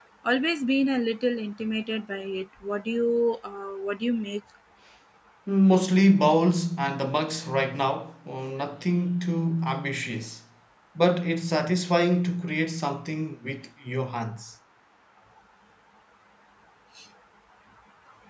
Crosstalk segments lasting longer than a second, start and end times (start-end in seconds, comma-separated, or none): none